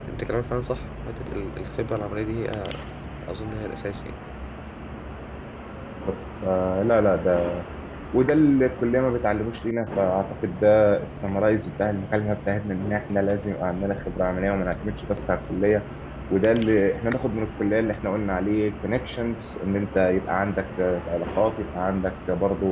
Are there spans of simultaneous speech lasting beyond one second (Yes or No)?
No